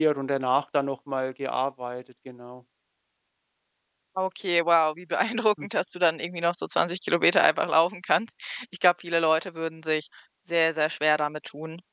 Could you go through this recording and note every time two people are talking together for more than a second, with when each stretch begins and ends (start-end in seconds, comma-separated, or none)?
none